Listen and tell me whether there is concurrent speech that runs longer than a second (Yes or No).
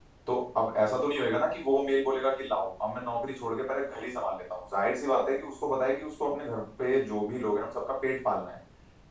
No